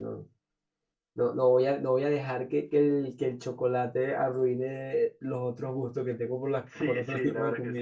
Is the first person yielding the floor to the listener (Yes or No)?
Yes